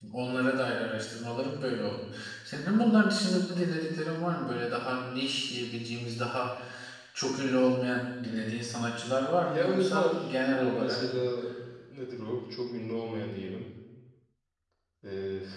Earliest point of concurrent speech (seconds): 9.4 s

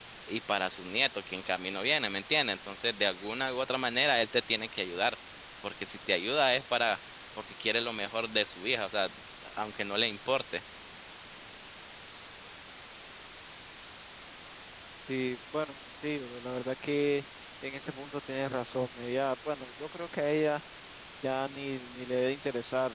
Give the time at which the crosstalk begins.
none

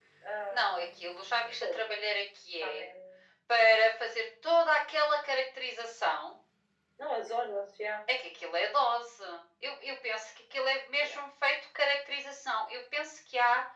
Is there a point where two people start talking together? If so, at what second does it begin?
0.5 s

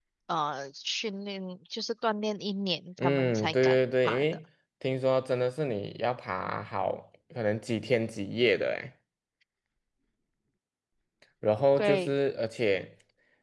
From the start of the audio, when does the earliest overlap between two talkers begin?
3.0 s

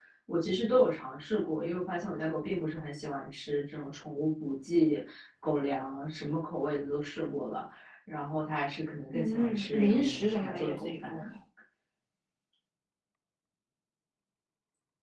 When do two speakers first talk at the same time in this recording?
9.1 s

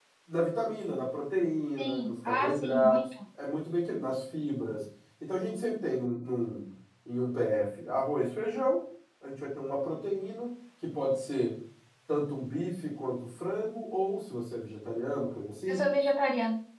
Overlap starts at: 1.8 s

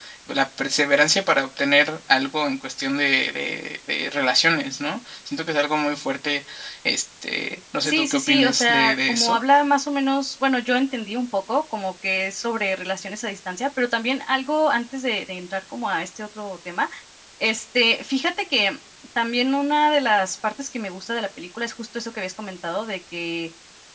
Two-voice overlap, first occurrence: 7.8 s

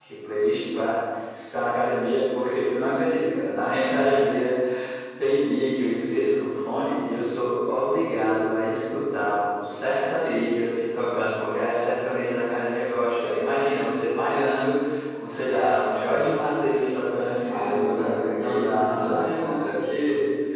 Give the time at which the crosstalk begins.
17.5 s

